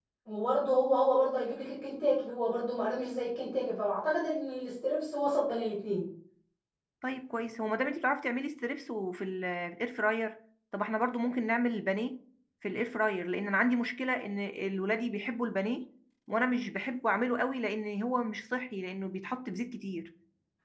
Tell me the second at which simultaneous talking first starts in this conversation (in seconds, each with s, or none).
none